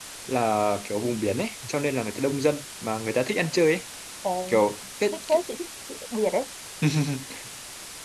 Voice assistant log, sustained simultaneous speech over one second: none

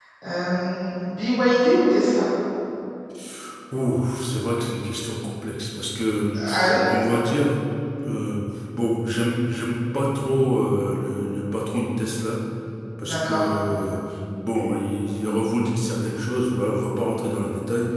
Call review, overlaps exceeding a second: none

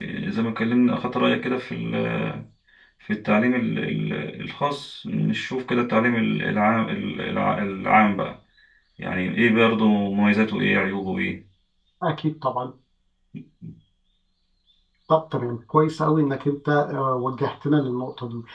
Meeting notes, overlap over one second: none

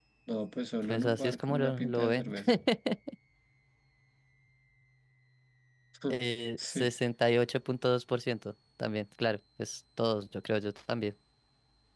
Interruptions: present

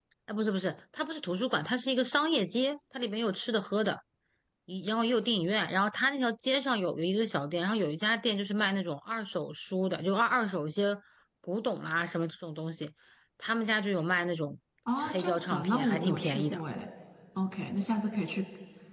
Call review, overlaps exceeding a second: present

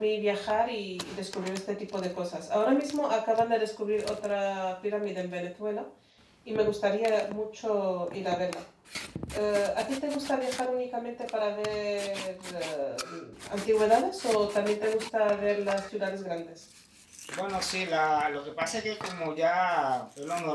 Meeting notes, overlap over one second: none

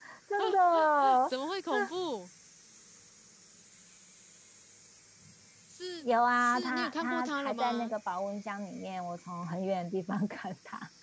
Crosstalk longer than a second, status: present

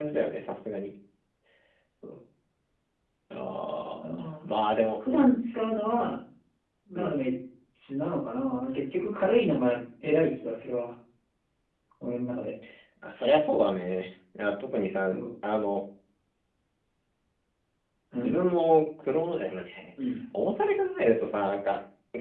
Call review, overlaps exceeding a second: none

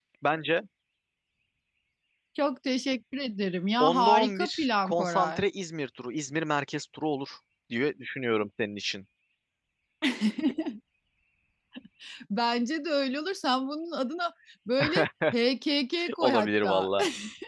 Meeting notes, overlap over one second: present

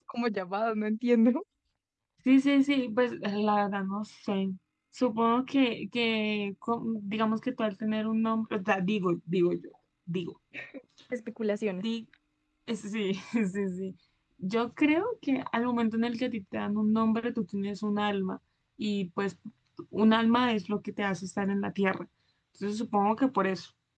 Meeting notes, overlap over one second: none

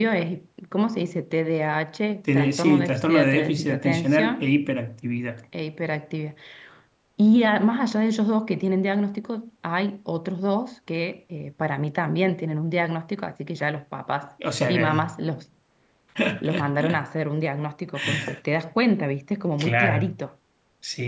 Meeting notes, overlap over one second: present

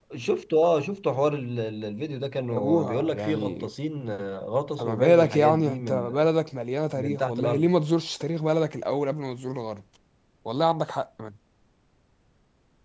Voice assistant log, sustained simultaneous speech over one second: present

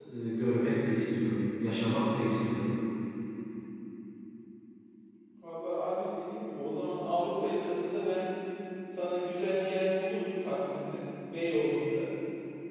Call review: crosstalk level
none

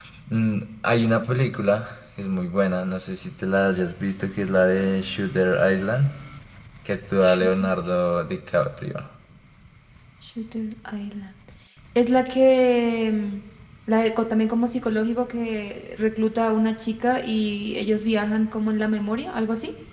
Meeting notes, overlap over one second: none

